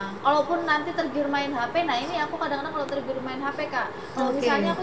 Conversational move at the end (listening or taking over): listening